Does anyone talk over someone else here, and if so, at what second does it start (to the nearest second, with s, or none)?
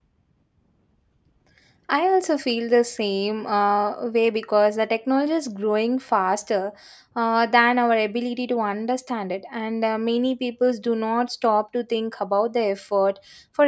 none